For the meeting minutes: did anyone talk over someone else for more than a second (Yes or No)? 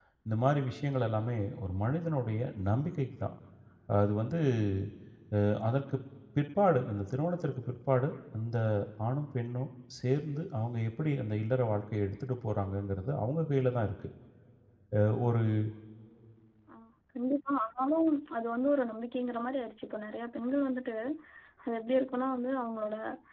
No